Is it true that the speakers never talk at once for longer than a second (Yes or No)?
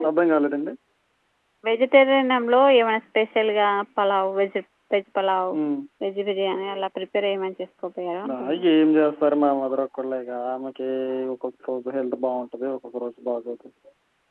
Yes